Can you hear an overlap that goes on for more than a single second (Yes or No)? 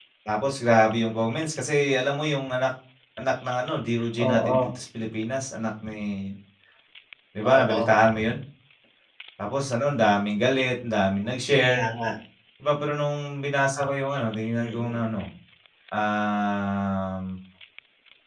No